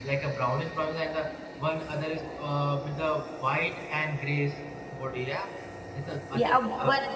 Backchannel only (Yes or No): No